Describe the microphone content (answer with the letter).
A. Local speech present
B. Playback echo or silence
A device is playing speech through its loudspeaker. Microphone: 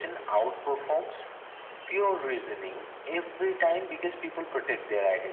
B